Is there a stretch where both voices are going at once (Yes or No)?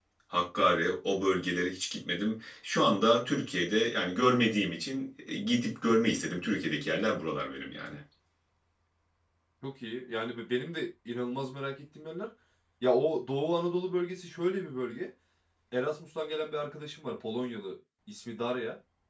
No